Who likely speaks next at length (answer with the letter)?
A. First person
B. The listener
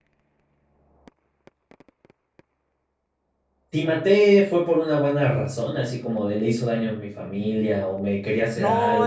B